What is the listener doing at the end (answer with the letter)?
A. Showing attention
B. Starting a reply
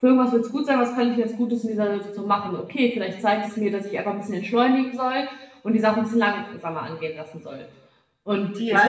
B